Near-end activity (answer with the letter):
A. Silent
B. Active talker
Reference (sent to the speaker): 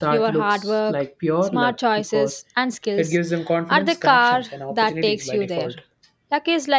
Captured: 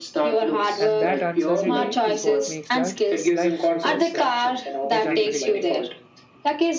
B